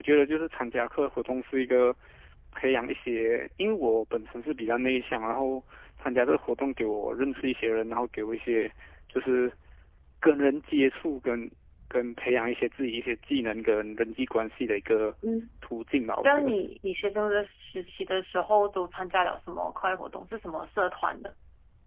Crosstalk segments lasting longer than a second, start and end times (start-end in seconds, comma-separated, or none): none